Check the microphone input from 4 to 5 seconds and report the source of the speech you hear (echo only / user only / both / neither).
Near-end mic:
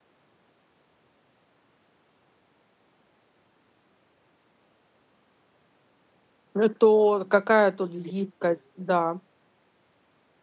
neither